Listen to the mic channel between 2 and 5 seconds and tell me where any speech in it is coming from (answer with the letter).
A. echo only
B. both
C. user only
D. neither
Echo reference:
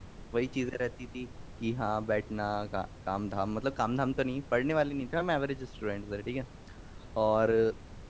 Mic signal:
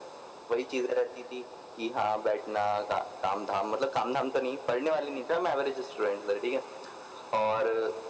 A